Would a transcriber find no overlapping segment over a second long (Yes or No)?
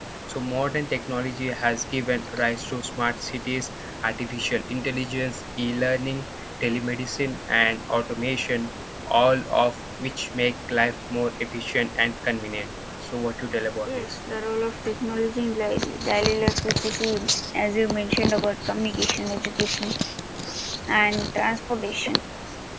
Yes